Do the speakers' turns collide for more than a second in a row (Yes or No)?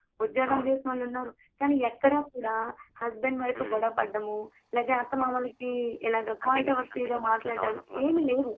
Yes